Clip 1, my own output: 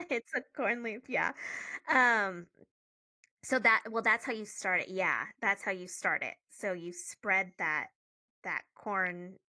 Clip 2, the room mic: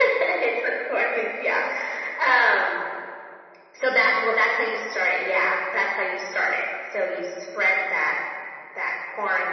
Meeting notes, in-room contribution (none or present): none